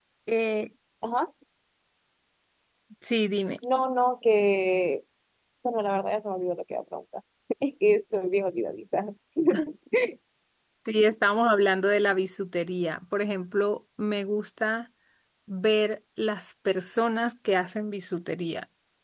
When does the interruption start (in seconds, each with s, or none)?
none